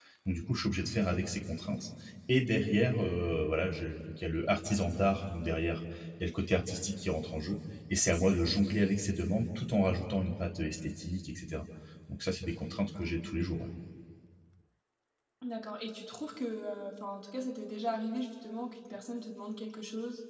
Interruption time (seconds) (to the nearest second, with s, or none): none